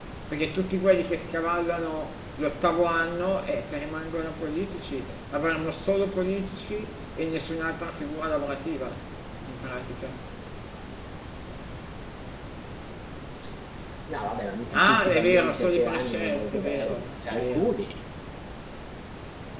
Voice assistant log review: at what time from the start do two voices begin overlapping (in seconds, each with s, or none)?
14.7 s